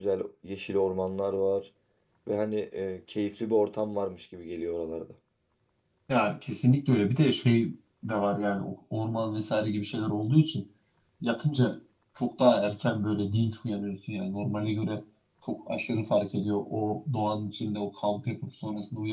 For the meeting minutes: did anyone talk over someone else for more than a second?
No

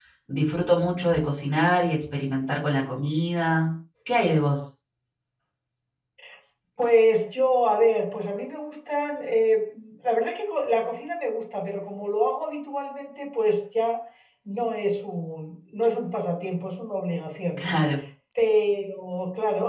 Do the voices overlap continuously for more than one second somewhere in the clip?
No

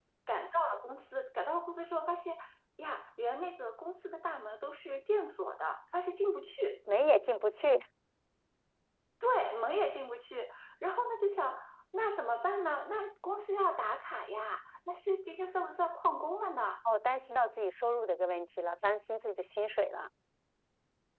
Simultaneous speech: No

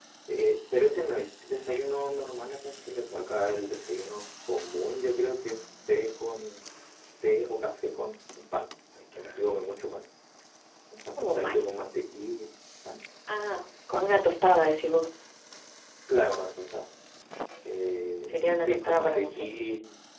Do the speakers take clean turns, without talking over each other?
No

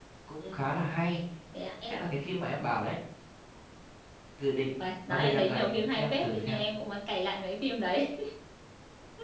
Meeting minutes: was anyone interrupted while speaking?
Yes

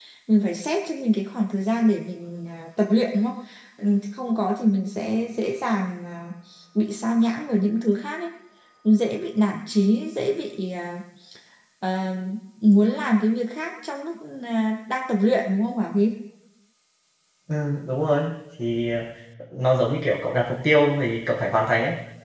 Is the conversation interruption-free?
Yes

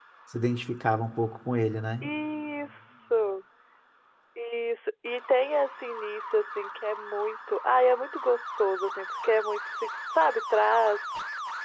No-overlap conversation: Yes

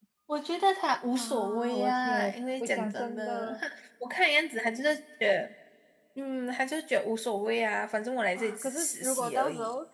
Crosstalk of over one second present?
Yes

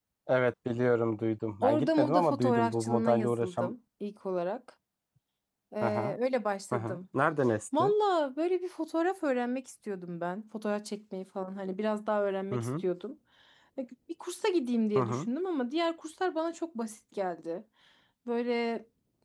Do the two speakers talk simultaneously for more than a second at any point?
Yes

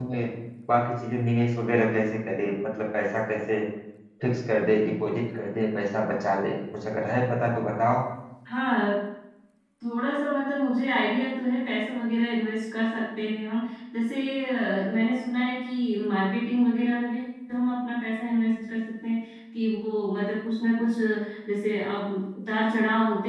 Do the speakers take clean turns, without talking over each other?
Yes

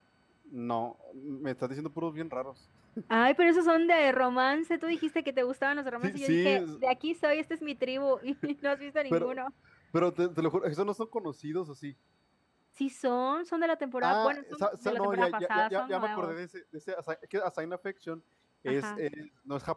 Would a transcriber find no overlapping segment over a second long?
No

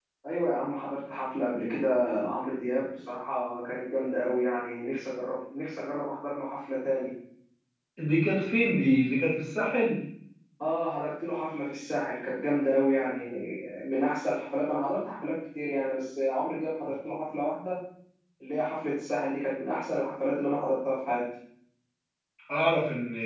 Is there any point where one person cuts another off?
No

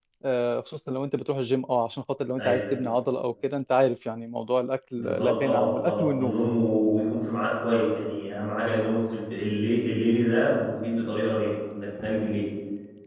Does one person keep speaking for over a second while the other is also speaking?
Yes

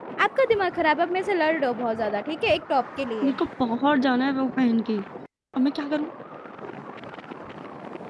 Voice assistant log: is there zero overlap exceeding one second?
Yes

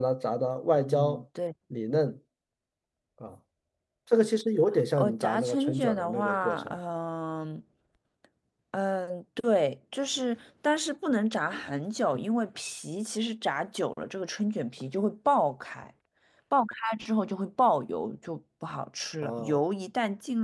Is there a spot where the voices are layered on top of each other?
Yes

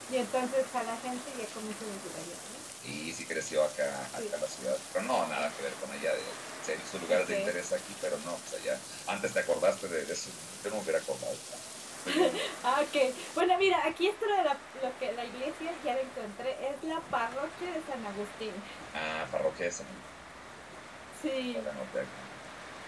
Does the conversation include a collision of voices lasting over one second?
No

